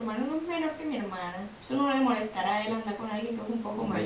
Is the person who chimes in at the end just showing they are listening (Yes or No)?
No